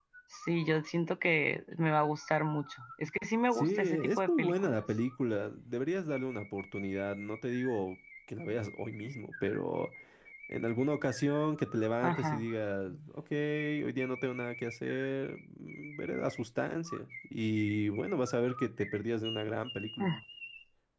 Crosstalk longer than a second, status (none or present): present